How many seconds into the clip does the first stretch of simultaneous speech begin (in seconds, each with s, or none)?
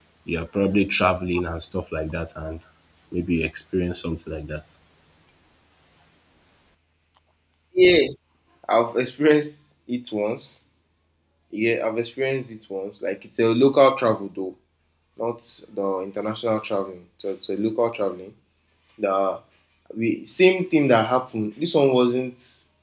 none